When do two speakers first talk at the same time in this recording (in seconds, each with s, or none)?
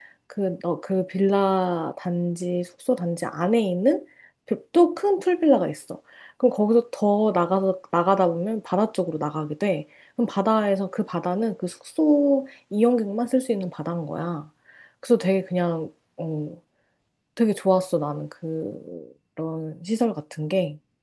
none